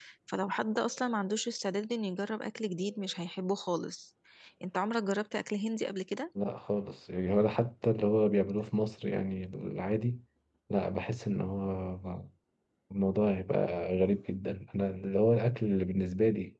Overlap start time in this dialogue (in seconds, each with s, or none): none